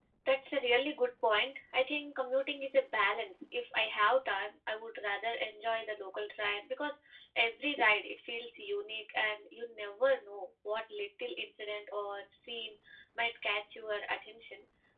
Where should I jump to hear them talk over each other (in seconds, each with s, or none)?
none